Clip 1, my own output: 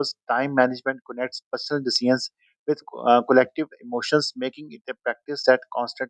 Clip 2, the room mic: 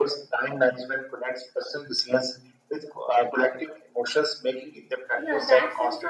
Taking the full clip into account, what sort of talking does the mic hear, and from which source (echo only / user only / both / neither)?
both